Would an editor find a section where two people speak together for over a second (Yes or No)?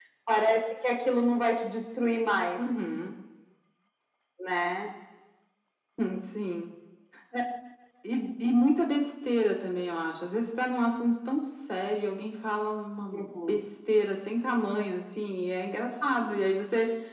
No